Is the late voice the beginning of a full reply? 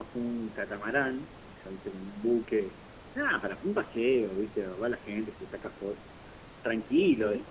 No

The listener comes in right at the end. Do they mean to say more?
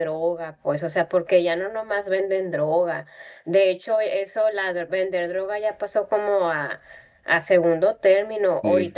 No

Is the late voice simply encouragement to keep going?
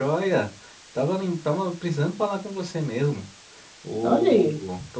Yes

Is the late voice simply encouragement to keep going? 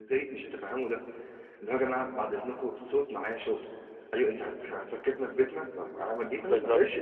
No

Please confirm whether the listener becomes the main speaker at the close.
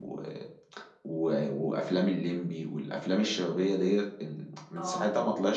Yes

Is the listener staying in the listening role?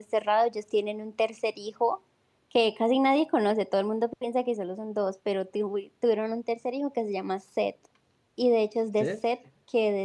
Yes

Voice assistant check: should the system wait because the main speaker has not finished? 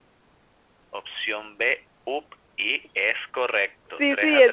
No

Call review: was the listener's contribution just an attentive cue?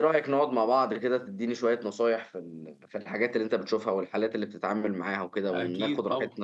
No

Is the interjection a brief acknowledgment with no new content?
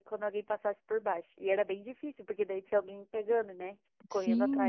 No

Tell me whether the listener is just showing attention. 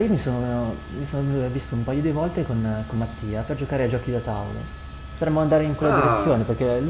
Yes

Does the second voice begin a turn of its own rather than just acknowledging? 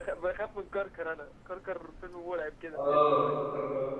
Yes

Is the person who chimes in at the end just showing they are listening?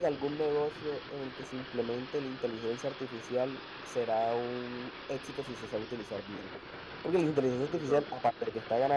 Yes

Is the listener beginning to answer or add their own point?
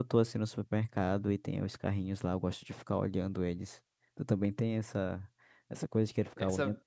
No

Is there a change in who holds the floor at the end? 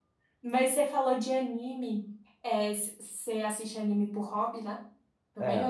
Yes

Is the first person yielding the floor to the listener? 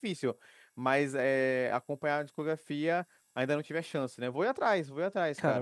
Yes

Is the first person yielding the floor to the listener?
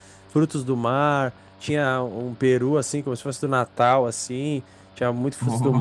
No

